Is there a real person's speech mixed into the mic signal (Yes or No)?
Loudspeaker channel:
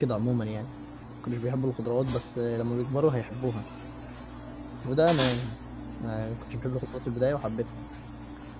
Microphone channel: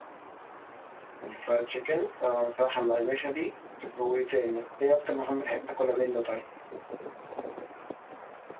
Yes